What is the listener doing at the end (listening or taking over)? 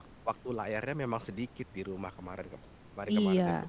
taking over